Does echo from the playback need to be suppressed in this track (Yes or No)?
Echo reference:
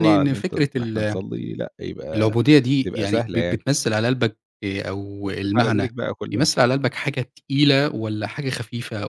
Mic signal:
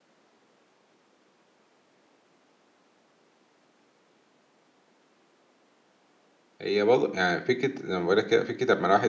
No